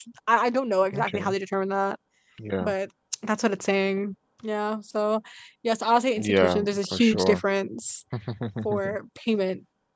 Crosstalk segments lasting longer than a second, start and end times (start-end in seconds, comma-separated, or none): 6.2-7.4